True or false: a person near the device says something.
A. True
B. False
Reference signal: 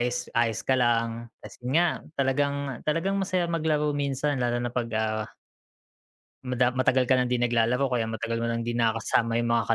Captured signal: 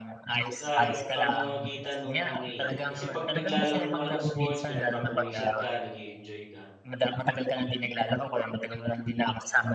A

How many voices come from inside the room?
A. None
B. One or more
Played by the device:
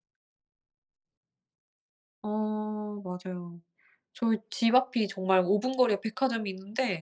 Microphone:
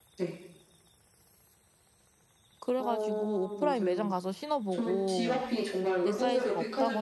B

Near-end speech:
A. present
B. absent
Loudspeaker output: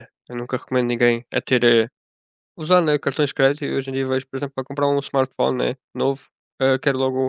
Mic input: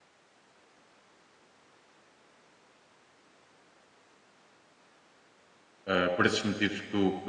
A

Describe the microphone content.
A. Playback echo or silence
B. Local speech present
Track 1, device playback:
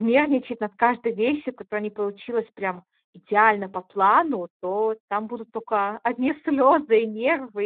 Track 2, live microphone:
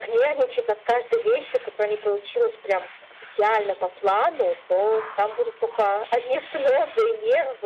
A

